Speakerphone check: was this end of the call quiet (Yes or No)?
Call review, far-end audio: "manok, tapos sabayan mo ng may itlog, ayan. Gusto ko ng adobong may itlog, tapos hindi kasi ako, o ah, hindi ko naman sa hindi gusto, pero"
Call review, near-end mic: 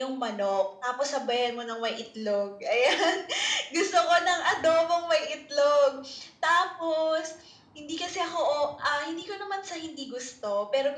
Yes